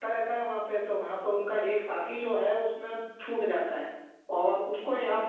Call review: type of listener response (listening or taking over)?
listening